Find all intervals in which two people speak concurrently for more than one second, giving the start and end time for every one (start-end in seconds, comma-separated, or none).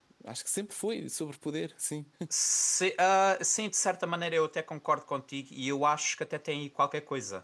none